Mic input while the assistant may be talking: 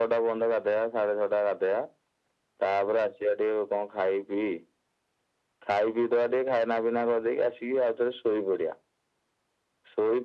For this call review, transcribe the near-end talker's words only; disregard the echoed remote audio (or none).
none